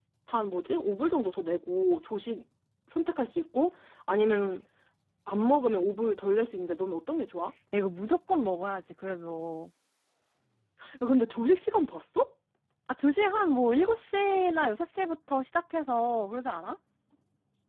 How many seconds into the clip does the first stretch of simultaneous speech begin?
none

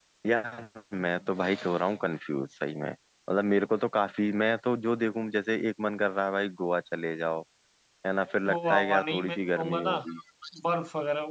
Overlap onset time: 8.5 s

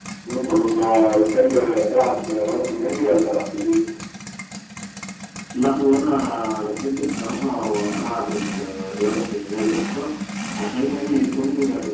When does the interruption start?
none

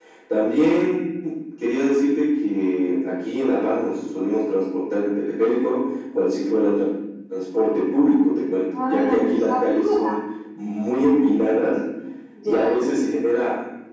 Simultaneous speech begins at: 8.8 s

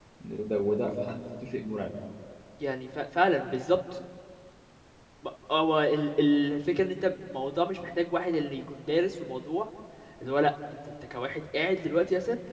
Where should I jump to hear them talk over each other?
none

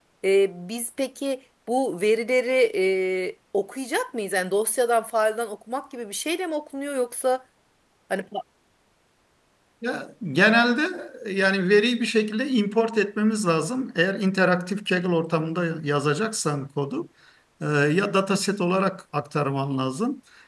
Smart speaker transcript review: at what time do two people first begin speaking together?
none

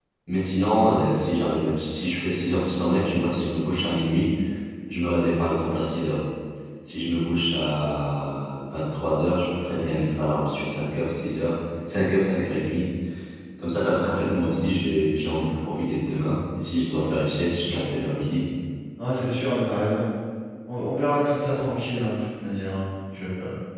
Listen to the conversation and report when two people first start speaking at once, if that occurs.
none

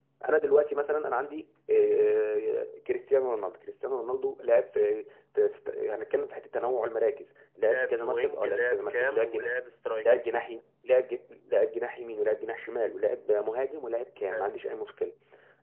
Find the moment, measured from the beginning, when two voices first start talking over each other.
7.7 s

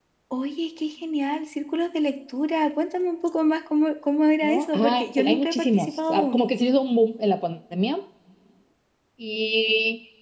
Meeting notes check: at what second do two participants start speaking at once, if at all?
4.4 s

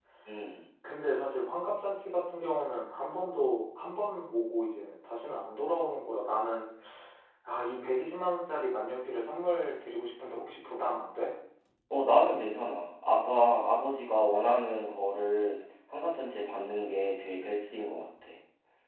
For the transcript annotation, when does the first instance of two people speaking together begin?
none

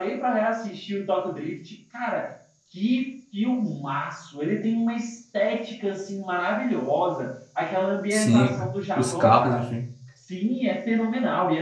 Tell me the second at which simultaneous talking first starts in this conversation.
8.1 s

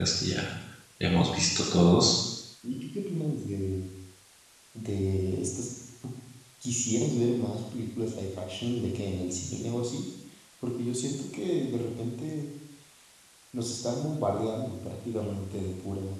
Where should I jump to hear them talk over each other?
none

